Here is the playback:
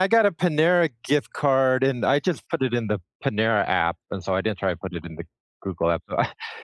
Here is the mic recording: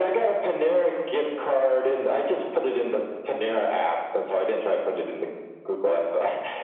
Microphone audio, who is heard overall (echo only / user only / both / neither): echo only